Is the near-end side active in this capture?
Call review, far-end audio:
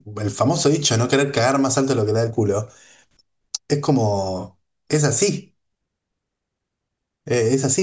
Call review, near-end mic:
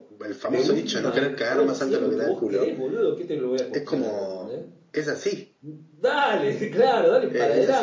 Yes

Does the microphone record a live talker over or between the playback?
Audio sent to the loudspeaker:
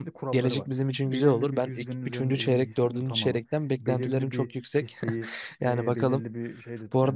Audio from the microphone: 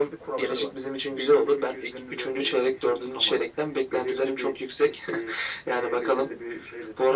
No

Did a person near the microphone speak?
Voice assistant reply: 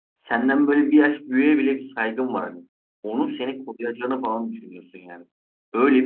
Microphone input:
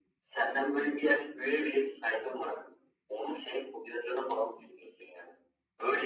No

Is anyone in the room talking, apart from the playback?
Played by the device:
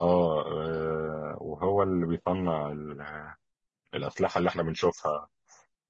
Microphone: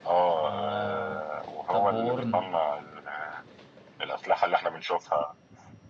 Yes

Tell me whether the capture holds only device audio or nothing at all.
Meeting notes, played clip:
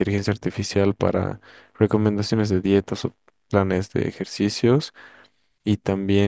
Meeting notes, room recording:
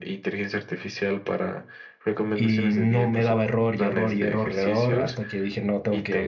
No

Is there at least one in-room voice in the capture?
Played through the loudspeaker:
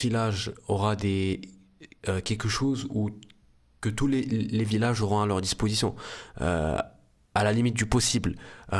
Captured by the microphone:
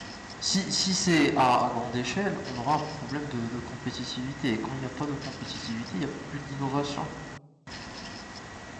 Yes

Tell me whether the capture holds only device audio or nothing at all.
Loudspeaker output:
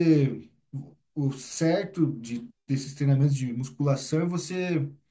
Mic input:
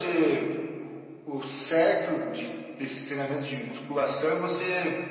Yes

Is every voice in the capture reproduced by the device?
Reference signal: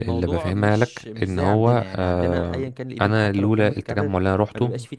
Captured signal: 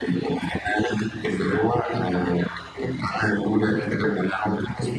Yes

